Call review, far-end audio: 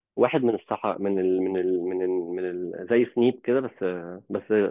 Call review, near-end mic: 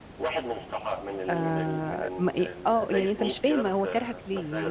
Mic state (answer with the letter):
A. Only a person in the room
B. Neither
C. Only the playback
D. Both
D